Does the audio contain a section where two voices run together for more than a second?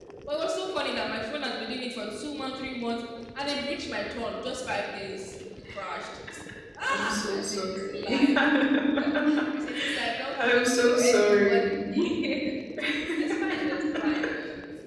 Yes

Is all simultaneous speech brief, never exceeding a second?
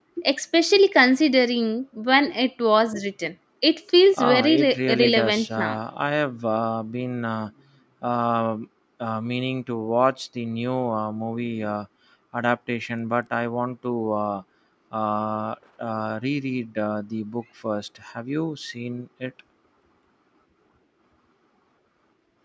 No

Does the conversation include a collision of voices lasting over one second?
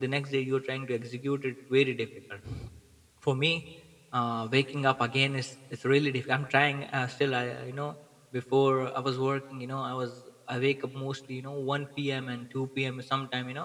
No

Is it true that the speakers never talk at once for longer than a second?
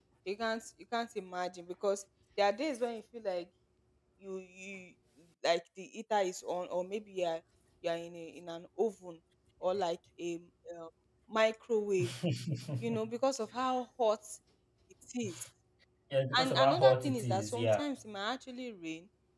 No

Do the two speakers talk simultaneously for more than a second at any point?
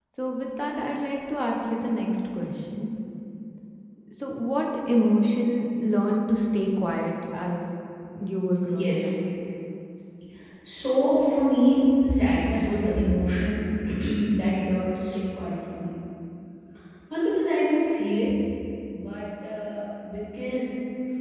No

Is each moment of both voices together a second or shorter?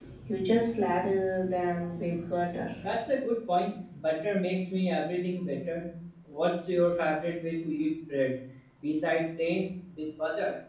Yes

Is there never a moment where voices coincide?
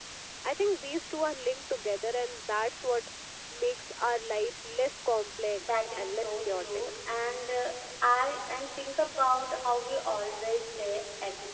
No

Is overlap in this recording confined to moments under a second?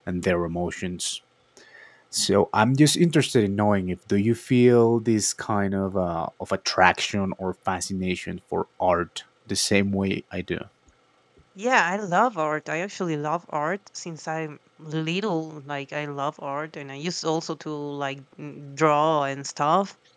Yes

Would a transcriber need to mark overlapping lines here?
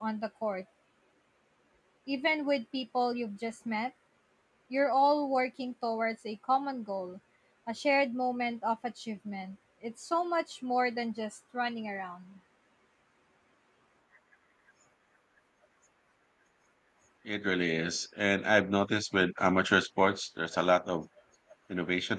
No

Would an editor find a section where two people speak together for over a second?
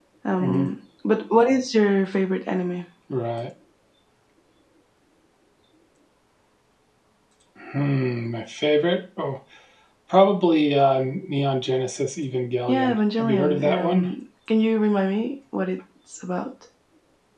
Yes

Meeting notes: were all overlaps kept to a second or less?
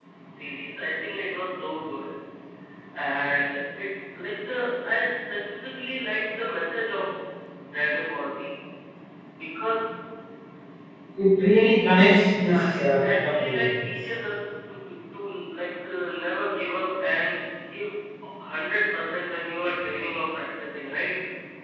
No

